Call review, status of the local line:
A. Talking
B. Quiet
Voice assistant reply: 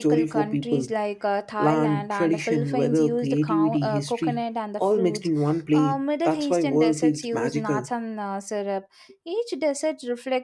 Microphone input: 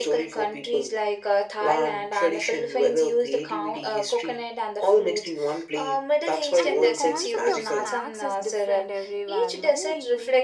A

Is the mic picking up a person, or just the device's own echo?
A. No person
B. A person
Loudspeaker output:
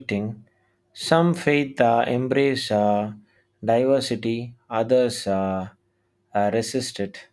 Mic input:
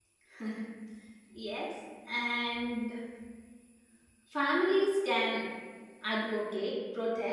B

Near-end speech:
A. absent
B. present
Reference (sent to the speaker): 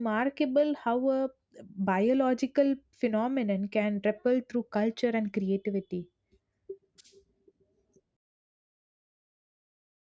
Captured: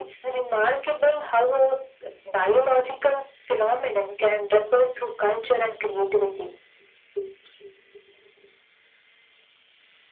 A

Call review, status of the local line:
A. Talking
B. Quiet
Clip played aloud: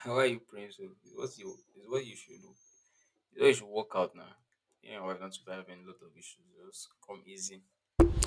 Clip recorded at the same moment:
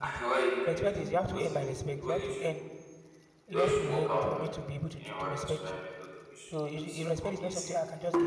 A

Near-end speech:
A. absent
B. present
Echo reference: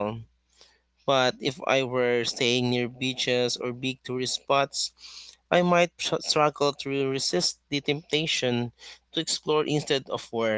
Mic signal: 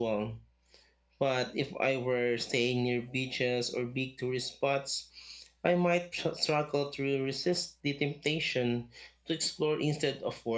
A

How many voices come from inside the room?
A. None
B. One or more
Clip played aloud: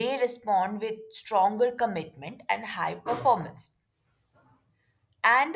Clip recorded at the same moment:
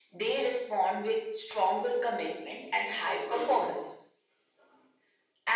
A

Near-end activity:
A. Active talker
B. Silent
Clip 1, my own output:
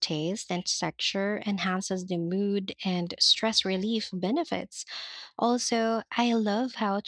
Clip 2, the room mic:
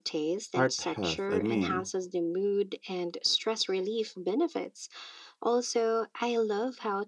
A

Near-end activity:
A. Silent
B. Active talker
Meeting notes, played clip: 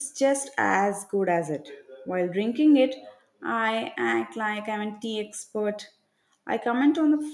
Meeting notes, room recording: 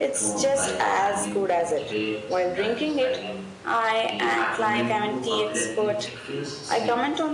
B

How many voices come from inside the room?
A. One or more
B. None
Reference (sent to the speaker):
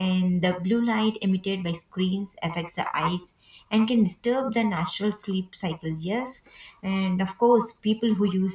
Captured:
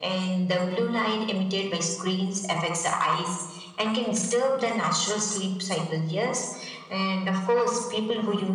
B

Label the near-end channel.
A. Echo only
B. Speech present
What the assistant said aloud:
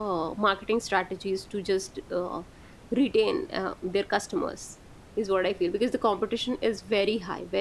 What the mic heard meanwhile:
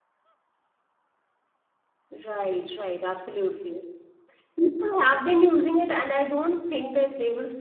B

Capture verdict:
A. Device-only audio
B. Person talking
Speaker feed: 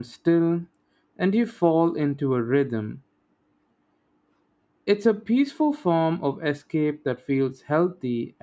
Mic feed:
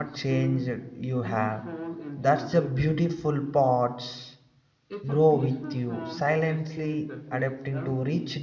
B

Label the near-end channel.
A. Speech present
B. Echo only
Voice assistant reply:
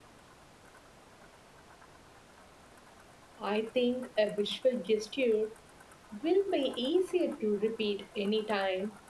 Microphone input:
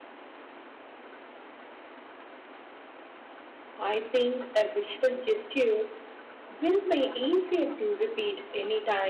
B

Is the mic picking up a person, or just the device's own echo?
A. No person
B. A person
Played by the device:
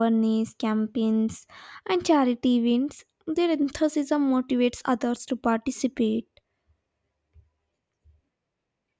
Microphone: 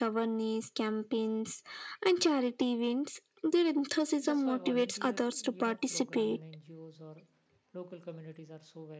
B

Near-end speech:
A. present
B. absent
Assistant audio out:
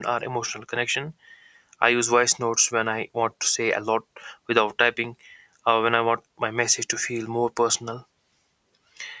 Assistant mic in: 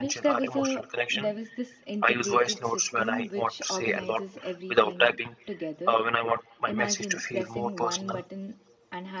A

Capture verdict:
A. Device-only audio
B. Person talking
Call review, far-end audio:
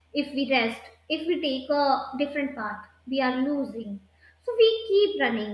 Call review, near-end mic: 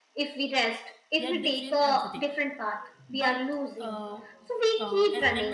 B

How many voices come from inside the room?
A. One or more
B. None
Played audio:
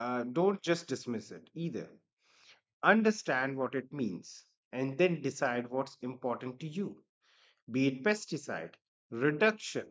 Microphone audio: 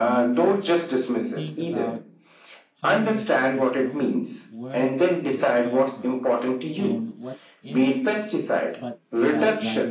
A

